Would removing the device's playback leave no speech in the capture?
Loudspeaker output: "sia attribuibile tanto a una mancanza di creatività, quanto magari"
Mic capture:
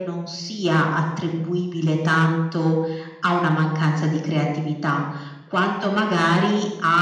Yes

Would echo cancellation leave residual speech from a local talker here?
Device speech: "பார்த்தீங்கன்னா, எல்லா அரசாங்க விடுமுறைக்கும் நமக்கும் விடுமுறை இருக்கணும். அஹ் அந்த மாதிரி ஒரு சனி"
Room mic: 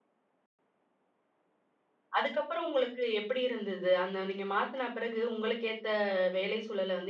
Yes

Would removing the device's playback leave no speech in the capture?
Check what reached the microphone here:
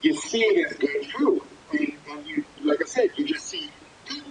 Yes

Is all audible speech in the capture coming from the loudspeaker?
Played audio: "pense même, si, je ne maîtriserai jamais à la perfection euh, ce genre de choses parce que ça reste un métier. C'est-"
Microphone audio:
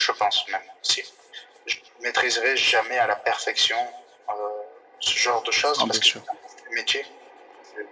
No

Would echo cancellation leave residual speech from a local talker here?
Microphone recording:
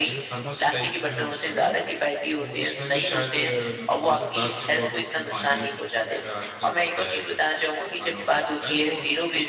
Yes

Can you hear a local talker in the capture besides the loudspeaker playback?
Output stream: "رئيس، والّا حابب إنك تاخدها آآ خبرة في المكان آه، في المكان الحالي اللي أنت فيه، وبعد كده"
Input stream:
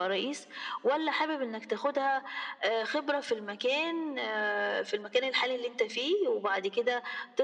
No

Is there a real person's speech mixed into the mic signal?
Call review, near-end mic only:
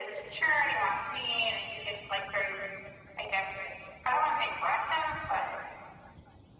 No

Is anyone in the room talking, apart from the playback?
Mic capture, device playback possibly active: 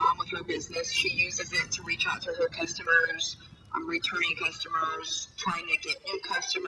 No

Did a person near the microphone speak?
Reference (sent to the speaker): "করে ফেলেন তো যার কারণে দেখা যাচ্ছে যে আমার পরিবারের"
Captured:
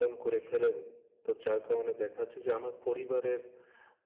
No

